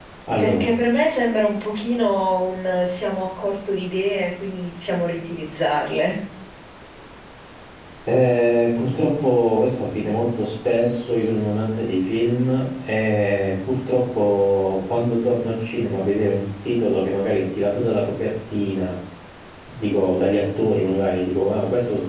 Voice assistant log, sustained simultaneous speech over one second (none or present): none